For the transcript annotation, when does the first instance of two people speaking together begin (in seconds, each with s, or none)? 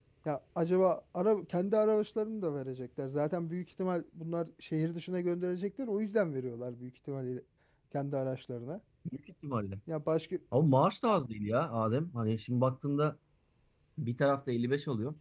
none